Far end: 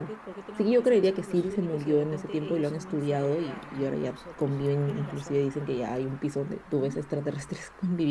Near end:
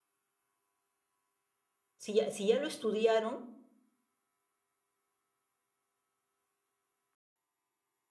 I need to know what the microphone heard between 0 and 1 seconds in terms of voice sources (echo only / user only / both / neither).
neither